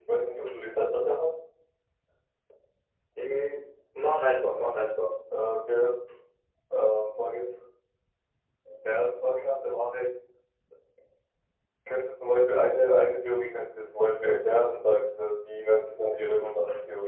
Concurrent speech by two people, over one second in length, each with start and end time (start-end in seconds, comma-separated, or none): none